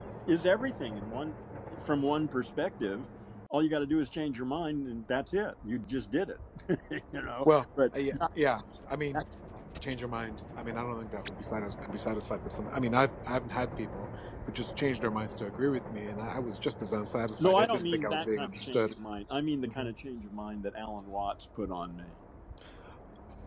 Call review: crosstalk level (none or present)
present